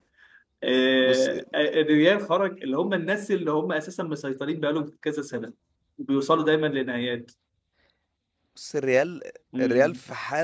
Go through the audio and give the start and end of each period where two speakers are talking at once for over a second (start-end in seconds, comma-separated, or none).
none